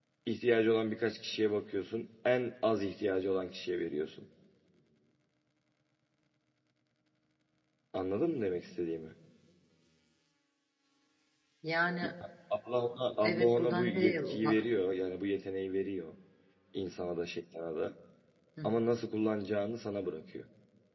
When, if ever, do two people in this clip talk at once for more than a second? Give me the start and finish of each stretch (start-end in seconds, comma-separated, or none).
13.2-14.6